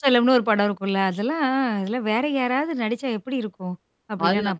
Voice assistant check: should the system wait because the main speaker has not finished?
No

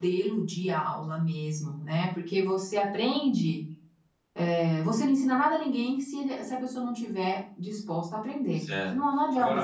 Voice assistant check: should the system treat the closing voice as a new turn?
Yes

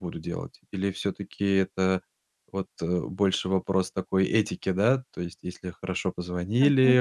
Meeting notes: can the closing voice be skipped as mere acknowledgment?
Yes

